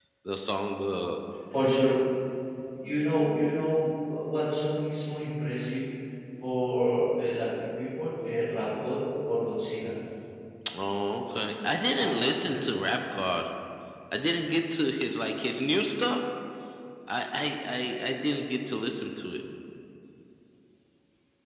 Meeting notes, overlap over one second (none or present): none